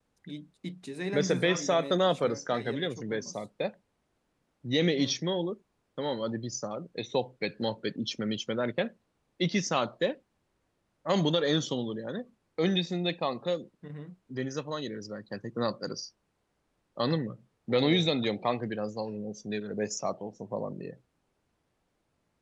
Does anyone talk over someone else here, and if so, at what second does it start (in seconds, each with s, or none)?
1.1 s